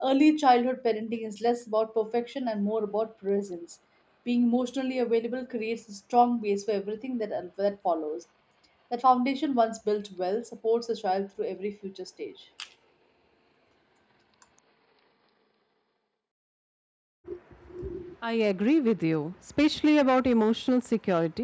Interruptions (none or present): none